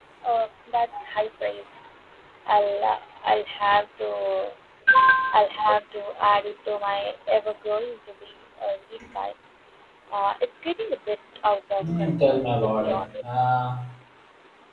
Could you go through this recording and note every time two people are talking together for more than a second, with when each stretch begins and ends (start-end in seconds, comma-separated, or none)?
11.8-13.4